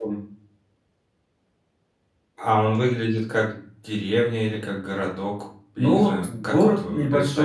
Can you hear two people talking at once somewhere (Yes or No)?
Yes